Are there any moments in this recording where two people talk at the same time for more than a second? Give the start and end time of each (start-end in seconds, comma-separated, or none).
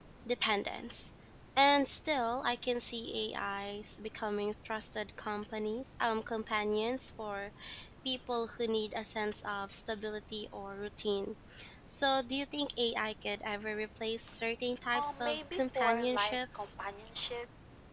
14.9-16.7